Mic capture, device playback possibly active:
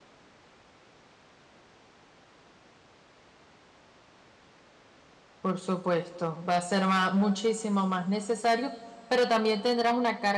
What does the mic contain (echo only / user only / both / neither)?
user only